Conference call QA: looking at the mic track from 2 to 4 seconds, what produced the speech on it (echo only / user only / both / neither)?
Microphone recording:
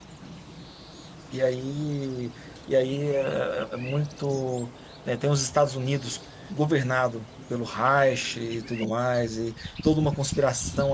user only